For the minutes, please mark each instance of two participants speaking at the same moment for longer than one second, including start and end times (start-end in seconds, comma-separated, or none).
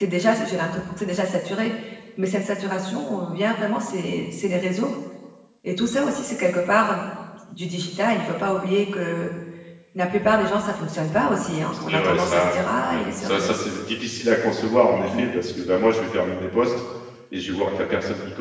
11.7-13.6